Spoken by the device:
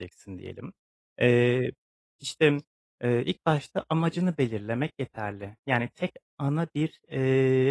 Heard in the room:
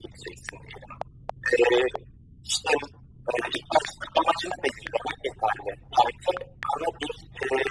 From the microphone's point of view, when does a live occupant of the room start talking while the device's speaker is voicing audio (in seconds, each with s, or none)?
none